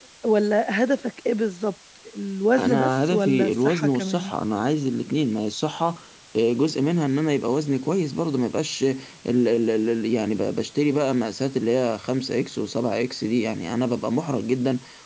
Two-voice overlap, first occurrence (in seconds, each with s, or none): 2.6 s